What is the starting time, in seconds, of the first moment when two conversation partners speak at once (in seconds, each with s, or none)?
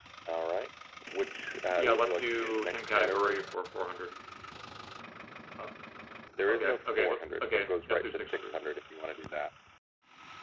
1.8 s